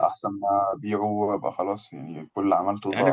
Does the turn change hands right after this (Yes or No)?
Yes